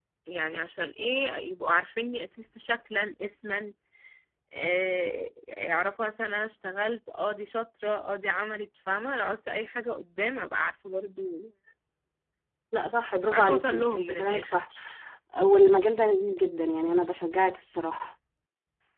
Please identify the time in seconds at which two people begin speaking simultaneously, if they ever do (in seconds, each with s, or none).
13.3 s